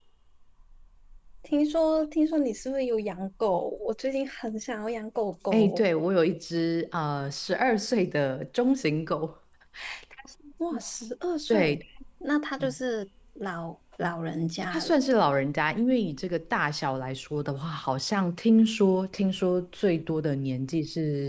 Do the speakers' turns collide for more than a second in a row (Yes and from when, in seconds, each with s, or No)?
No